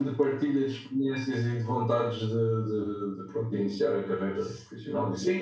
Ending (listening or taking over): taking over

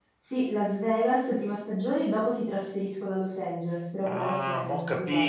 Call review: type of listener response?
taking over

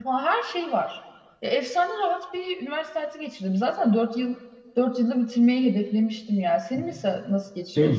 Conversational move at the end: taking over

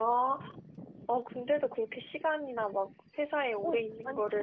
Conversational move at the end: taking over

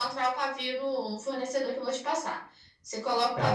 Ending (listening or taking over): taking over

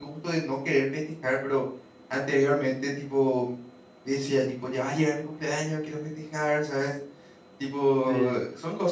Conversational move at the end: listening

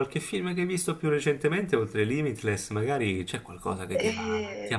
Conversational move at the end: listening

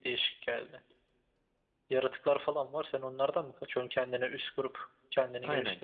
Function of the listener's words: taking over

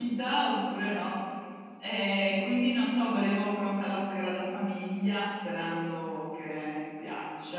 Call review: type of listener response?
taking over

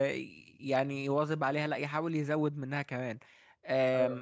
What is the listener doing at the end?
listening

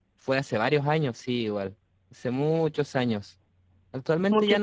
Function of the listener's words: listening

